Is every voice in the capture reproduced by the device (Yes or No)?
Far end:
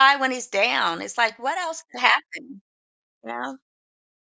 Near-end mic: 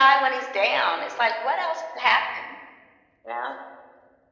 Yes